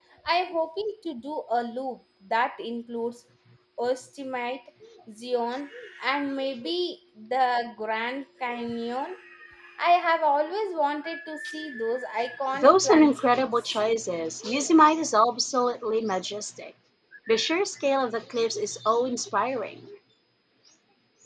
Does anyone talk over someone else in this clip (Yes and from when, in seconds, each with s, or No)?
Yes, from 12.5 s